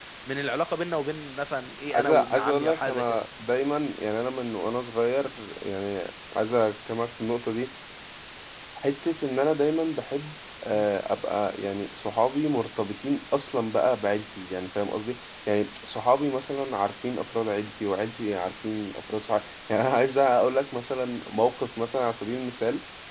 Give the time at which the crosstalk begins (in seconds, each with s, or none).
1.9 s